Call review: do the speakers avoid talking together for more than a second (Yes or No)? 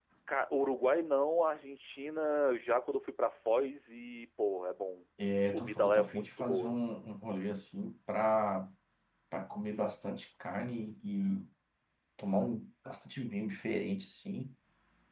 No